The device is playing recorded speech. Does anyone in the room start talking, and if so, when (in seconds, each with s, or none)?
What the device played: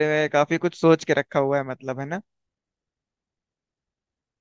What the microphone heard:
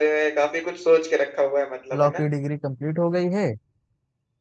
2.0 s